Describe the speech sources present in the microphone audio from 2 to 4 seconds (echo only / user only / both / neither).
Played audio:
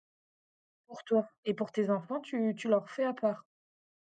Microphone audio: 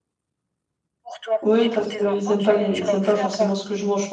both